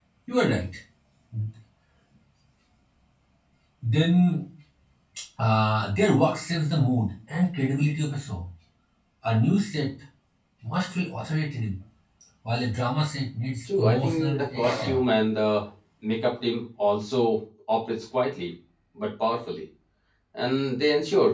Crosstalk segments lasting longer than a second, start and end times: 13.8-15.0

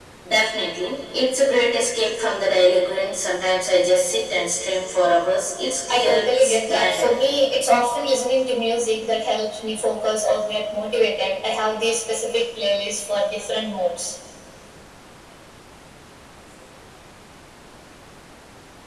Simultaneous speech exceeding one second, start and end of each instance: 5.9-7.1

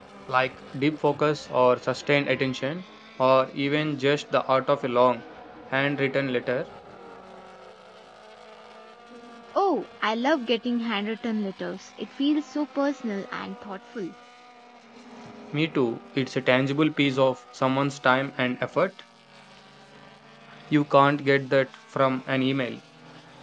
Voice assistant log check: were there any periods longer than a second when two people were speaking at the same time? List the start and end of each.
none

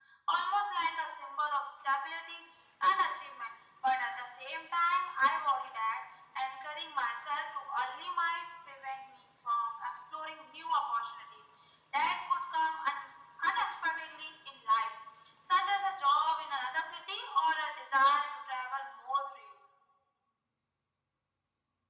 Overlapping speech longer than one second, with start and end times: none

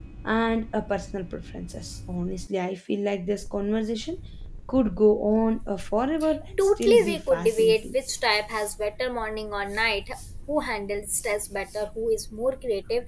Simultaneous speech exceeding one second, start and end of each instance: 6.6-8.0

